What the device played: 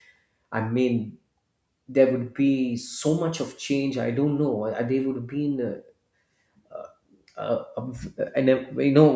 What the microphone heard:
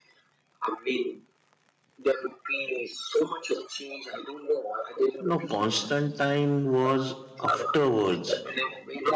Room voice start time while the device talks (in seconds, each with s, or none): 5.2 s